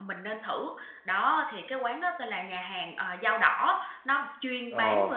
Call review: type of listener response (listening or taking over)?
listening